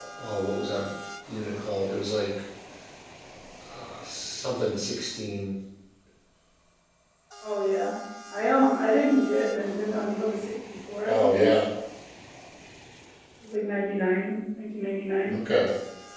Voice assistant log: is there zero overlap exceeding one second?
Yes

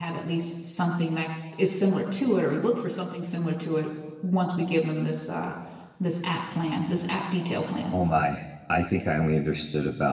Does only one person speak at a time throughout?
Yes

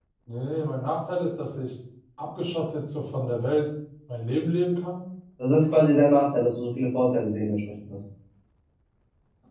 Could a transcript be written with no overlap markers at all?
Yes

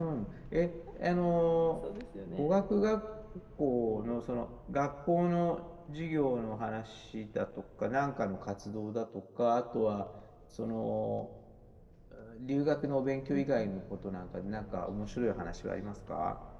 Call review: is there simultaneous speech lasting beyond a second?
No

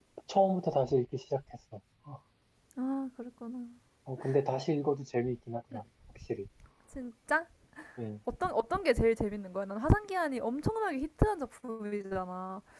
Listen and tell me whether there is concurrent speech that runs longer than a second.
No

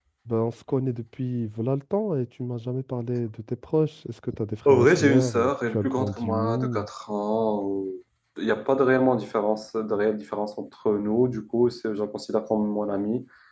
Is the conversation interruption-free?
No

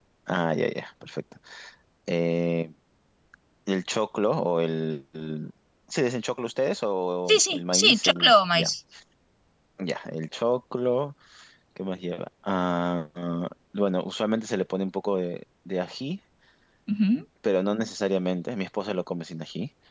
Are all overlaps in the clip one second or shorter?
No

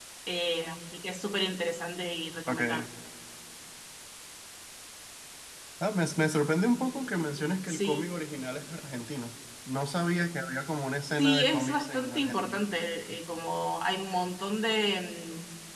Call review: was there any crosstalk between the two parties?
Yes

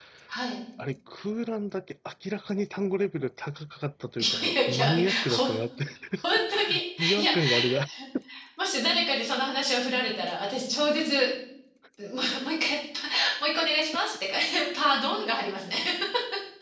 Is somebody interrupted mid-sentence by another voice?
Yes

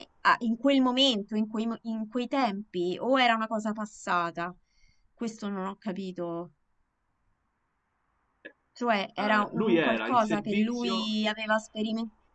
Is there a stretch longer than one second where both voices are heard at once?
Yes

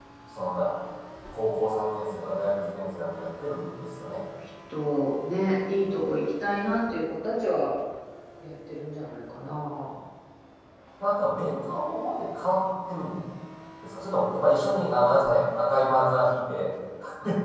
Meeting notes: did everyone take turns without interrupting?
Yes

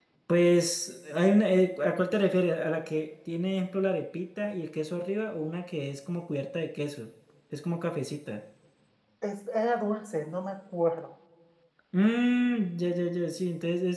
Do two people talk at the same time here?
No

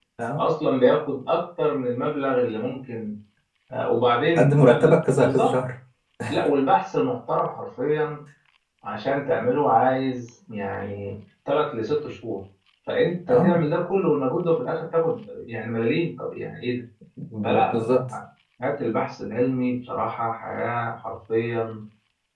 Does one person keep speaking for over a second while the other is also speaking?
Yes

